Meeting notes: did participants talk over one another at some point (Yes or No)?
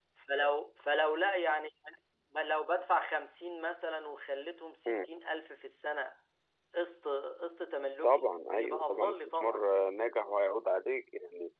Yes